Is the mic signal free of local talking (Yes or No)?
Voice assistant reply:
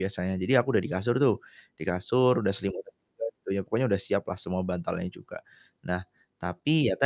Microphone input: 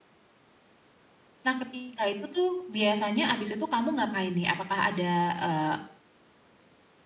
No